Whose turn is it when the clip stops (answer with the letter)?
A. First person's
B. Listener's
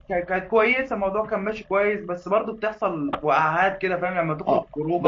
B